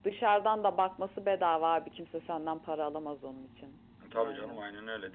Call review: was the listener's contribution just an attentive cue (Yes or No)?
No